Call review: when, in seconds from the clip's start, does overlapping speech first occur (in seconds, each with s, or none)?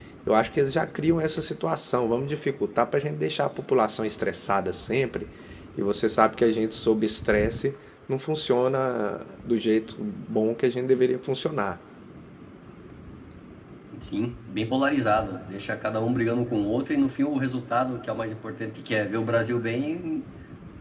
none